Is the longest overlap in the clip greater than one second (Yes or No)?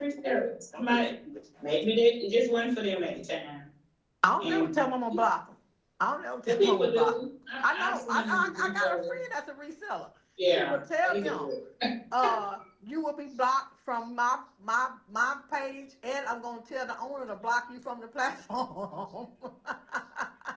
Yes